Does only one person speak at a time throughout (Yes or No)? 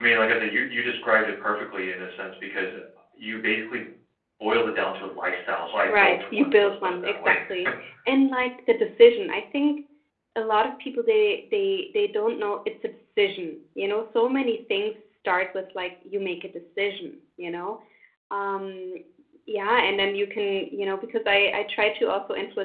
No